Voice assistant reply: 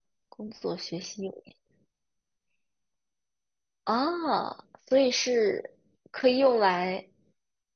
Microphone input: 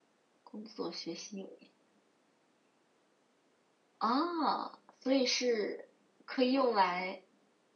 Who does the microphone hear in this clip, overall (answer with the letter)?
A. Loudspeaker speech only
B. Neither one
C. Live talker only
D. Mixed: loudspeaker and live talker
A